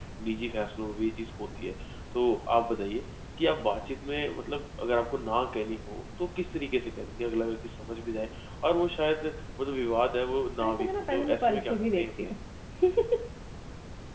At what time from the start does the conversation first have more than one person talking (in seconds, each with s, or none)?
10.6 s